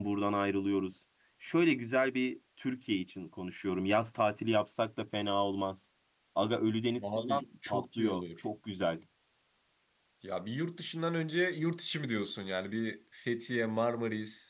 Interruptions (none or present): present